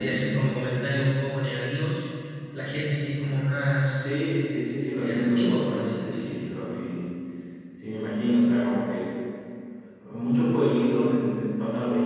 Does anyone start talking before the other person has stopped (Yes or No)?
Yes